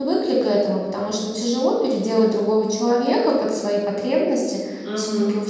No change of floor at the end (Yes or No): Yes